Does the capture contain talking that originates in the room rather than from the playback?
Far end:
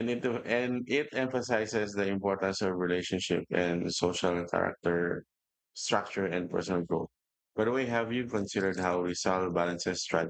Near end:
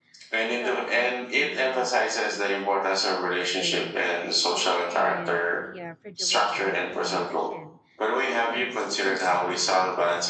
Yes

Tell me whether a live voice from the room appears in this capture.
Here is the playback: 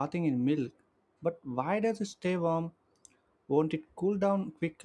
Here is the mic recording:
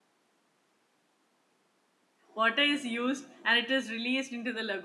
Yes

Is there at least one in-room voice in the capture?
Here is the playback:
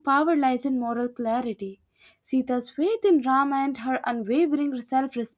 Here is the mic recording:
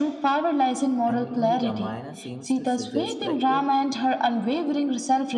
Yes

